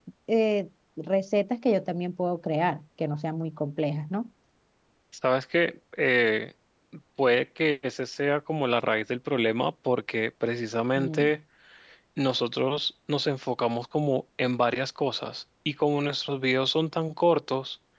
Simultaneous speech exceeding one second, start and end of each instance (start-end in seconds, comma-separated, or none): none